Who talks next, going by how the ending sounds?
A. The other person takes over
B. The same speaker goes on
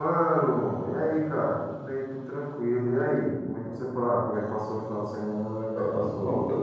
A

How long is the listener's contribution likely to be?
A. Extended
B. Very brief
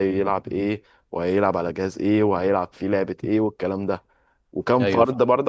B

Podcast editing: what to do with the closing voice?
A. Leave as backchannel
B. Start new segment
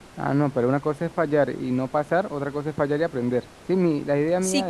B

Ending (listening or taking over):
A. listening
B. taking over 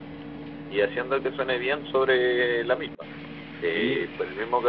A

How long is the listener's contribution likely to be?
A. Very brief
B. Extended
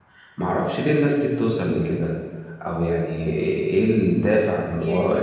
A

